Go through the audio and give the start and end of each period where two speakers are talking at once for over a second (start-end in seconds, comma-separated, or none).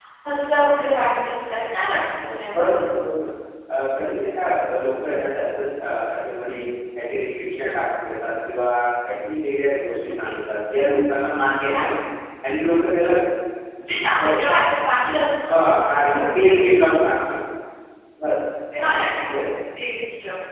15.5-16.8